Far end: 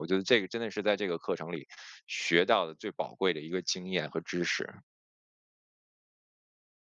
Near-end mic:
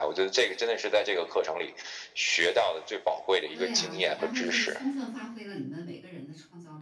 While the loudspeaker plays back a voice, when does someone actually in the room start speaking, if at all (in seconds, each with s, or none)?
3.5 s